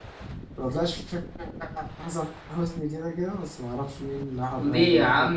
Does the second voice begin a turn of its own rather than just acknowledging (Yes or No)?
Yes